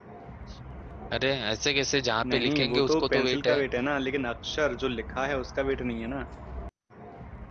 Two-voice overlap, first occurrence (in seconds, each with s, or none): 2.2 s